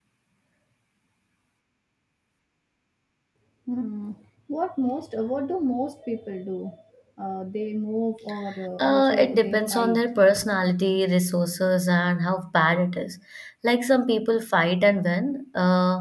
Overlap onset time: 8.8 s

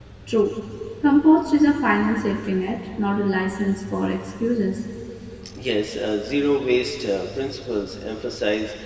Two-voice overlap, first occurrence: none

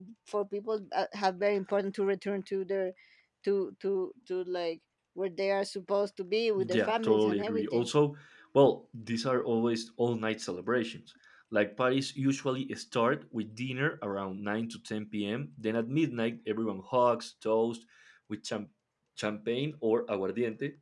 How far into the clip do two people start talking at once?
6.6 s

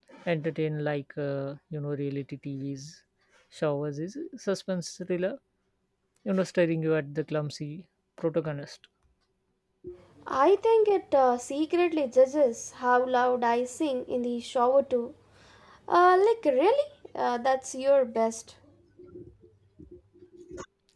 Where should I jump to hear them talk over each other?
none

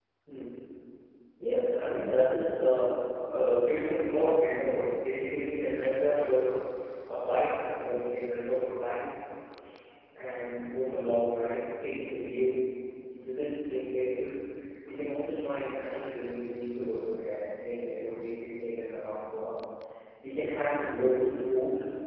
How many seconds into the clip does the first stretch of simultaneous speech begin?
none

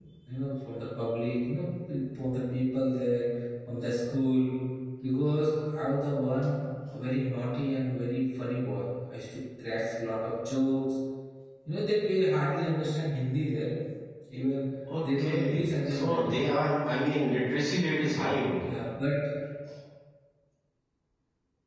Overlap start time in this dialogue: 15.0 s

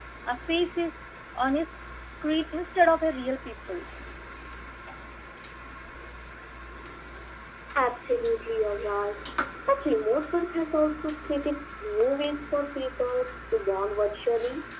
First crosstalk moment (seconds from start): none

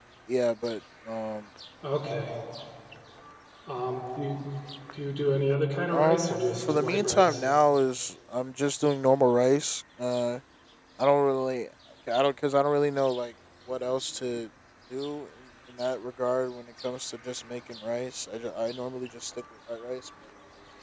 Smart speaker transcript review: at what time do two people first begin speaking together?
5.9 s

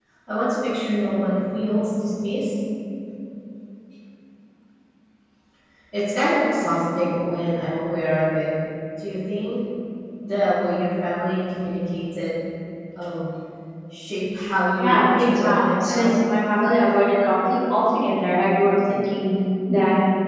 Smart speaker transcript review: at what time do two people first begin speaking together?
14.8 s

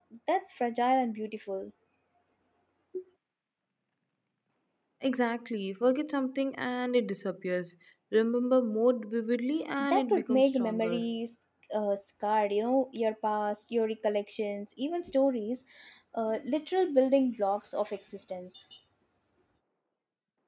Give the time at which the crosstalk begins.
9.8 s

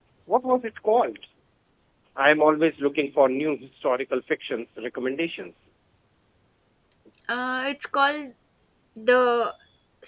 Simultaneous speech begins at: none

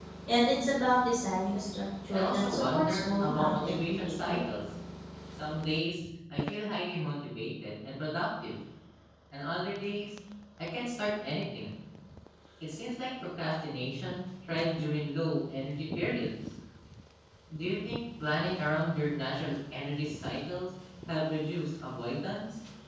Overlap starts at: 2.1 s

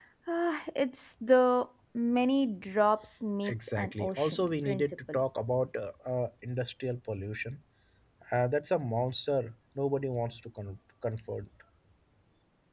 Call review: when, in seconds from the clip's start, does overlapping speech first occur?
3.4 s

